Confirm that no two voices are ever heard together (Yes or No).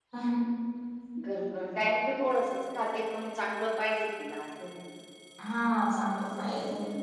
Yes